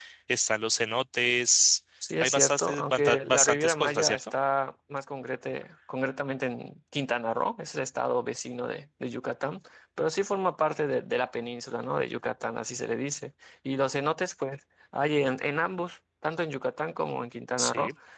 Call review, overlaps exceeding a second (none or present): present